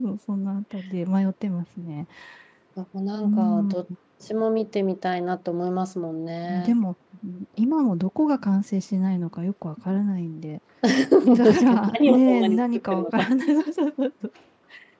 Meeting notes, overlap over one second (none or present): present